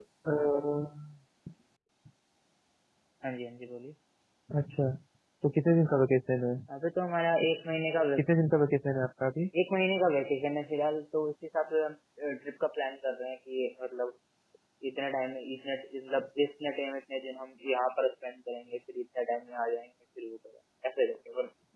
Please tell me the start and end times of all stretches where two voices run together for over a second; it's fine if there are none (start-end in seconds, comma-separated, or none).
none